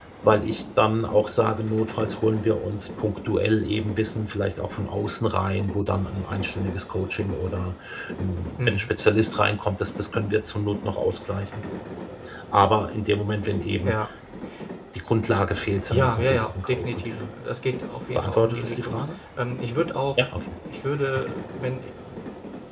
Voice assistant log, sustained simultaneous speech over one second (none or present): present